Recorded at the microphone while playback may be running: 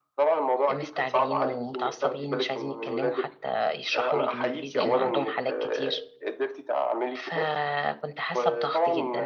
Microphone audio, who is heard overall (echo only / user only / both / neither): both